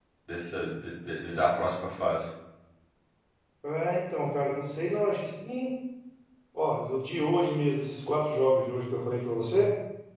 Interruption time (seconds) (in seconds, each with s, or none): none